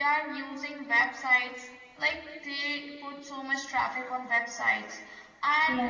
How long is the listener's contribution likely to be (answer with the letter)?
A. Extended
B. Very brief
B